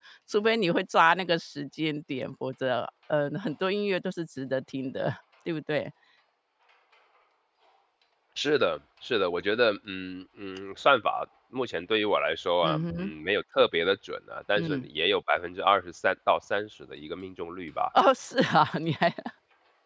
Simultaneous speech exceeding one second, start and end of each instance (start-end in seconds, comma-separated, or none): none